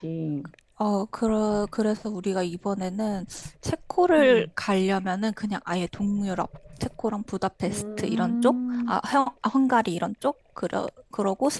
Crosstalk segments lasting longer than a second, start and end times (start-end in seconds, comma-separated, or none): 7.7-9.0